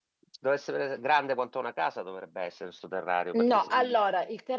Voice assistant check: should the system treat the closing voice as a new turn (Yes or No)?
Yes